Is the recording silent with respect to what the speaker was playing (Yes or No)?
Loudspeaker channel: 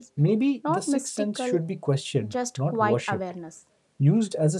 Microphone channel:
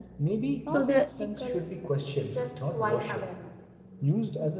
No